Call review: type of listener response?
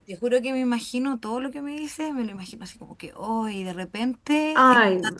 listening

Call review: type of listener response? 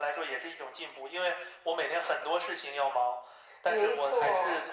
listening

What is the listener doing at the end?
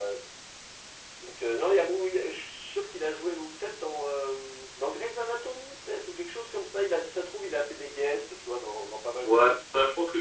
taking over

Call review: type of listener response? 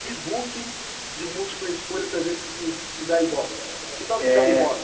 taking over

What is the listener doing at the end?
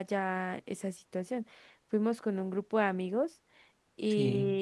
listening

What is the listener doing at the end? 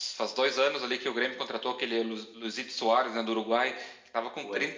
listening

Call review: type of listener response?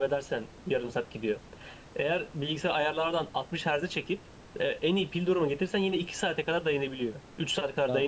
listening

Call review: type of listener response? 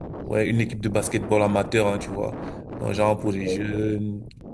listening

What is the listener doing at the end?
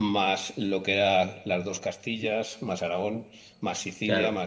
taking over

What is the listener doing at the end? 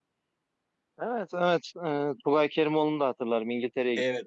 taking over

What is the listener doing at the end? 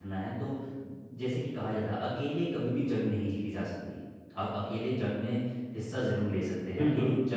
listening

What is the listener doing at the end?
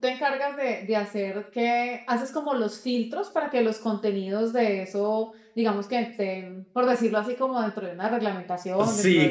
taking over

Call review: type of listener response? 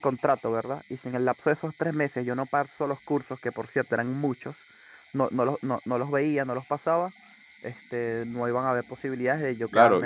taking over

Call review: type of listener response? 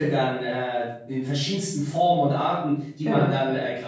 listening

